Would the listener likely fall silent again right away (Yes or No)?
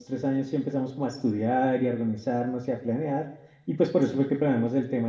Yes